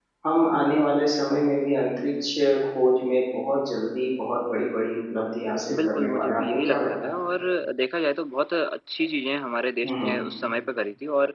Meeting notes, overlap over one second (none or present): present